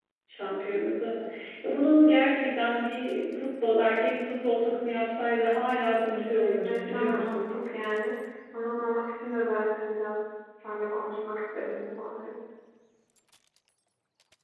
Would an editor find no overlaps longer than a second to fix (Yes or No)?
No